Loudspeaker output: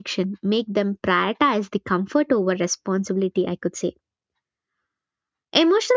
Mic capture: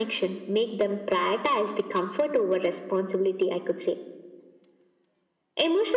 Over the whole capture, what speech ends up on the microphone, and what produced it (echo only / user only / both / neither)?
echo only